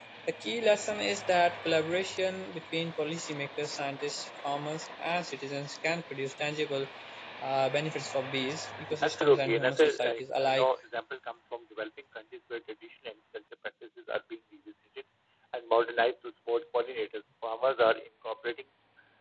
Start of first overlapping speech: 9.0 s

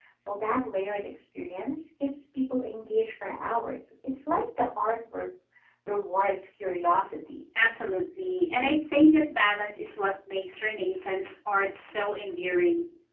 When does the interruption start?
none

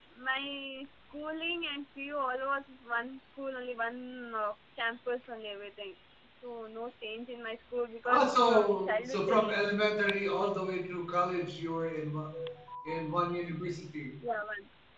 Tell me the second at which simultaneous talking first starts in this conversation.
8.1 s

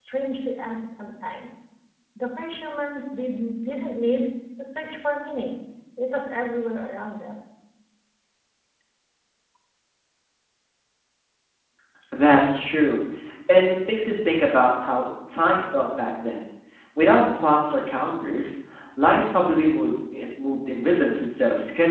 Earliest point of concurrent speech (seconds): none

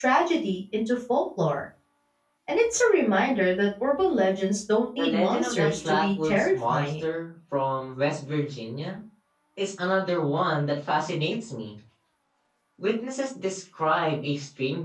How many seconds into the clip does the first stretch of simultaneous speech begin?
5.0 s

